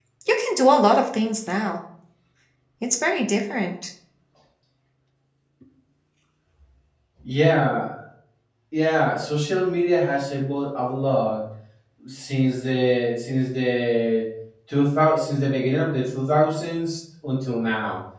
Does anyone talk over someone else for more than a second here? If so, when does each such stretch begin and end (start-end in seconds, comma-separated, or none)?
none